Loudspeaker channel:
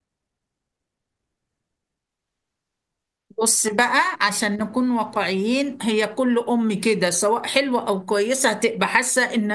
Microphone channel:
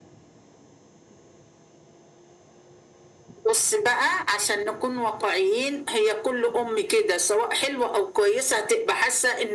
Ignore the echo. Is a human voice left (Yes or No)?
No